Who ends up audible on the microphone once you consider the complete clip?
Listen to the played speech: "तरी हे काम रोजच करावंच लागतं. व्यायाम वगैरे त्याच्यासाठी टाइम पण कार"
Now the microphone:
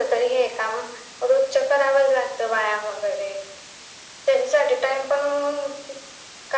echo only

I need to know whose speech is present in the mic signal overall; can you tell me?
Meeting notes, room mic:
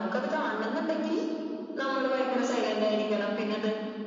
echo only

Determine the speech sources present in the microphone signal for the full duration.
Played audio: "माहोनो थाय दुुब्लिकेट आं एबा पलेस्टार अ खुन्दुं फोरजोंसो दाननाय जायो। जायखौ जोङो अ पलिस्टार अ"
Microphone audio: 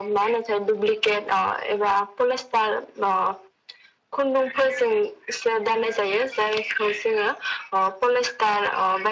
echo only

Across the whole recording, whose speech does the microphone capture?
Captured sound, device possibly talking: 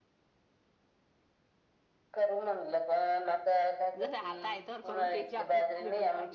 both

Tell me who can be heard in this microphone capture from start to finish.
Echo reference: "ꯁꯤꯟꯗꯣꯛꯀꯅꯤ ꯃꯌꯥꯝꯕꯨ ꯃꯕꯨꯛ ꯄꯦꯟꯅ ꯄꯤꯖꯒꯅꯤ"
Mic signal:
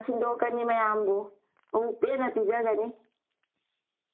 echo only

